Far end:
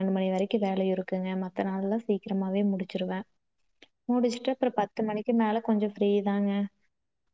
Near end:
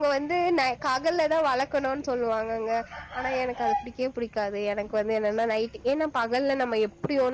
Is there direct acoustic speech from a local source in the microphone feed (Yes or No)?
Yes